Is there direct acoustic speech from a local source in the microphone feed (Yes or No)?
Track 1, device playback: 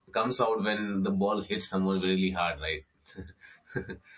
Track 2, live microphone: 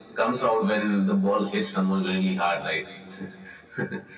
No